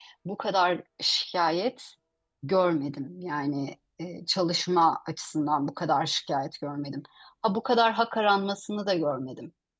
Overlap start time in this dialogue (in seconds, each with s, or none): none